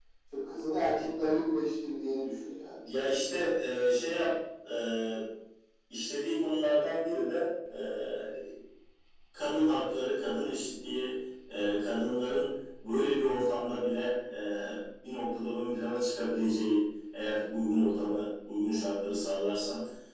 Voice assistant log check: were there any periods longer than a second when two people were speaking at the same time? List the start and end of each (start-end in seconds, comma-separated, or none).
none